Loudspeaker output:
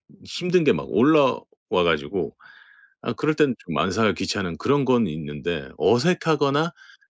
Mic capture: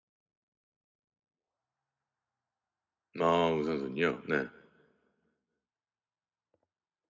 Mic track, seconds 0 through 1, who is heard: neither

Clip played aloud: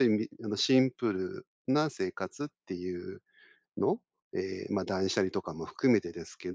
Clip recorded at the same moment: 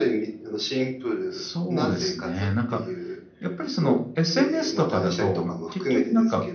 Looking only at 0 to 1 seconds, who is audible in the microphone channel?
echo only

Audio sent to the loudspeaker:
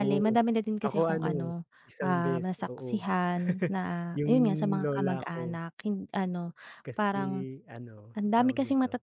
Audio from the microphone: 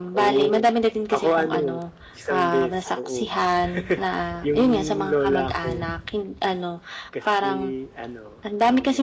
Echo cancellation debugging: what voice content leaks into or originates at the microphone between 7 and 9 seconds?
echo only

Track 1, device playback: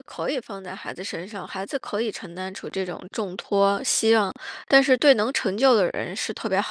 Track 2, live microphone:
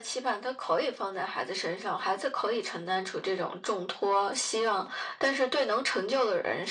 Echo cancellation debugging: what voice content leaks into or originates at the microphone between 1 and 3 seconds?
echo only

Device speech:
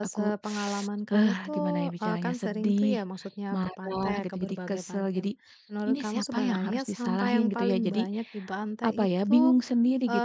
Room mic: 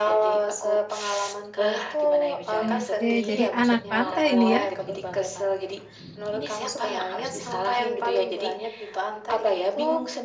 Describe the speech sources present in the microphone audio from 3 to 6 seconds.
both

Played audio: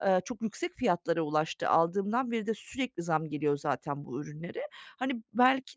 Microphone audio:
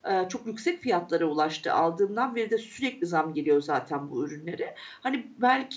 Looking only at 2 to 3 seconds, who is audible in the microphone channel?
echo only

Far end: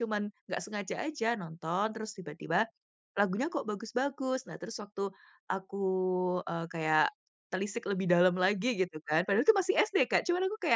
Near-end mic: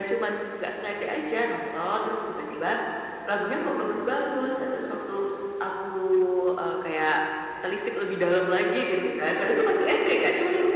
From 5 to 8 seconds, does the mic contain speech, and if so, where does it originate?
echo only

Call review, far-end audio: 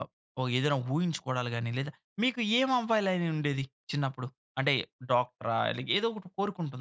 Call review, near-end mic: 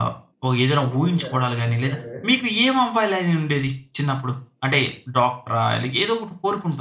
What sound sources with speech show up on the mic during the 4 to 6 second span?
echo only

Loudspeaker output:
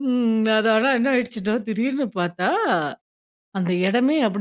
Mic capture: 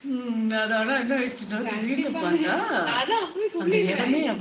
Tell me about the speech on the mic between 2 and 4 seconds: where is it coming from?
both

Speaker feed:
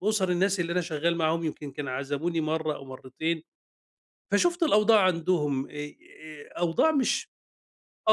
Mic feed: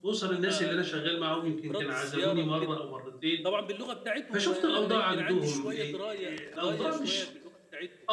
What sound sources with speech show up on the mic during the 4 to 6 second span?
both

